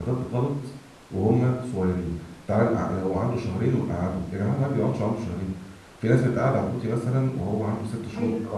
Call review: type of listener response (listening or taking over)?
listening